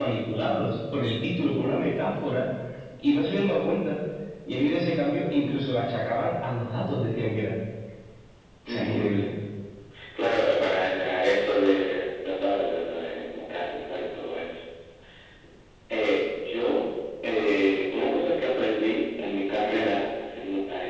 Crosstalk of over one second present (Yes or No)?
No